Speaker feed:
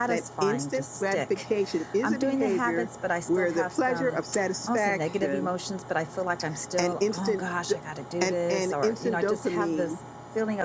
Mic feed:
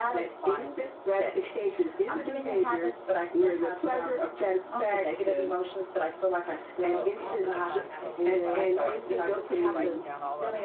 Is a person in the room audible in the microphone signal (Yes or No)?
Yes